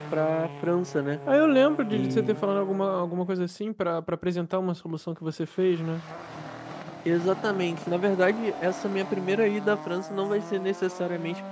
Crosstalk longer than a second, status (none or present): none